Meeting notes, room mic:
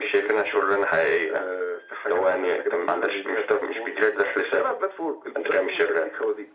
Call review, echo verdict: present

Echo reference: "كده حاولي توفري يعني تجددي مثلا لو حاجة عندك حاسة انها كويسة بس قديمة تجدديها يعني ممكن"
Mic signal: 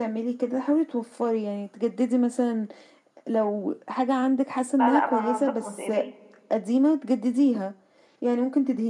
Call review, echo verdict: present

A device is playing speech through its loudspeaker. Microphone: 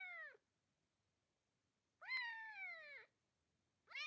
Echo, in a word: none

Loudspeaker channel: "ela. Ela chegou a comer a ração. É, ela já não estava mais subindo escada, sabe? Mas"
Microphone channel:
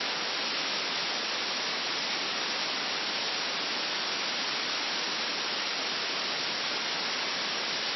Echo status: none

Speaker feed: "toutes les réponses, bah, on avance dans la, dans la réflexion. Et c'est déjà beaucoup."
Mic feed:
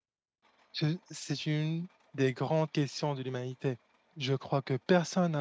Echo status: none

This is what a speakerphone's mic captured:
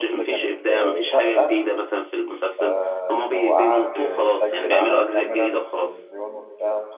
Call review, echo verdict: present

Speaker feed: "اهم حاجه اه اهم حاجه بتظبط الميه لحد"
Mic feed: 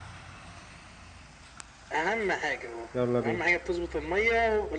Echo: present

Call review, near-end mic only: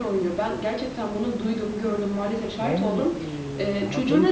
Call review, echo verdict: present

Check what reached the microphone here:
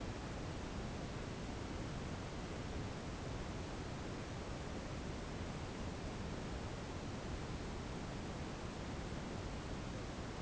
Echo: none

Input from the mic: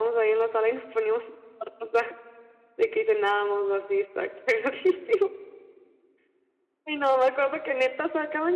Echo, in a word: present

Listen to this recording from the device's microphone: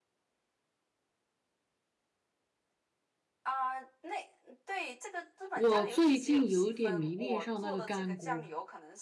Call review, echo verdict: present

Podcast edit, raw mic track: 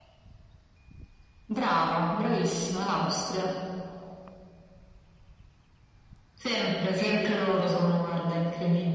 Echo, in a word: present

